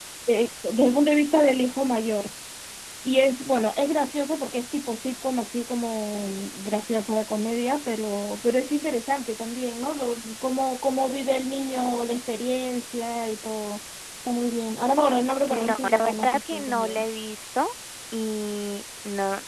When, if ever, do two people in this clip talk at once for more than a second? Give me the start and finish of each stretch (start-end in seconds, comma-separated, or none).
15.6-17.0